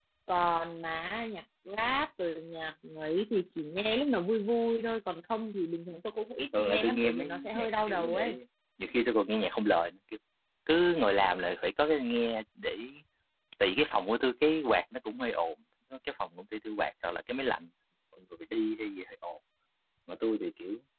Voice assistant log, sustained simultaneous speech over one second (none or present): present